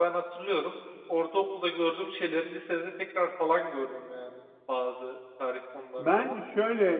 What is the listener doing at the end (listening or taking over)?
taking over